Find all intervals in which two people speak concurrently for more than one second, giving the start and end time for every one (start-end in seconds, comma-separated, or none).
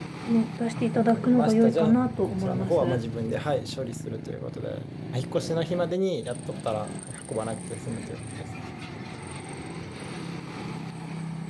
0.8-3.0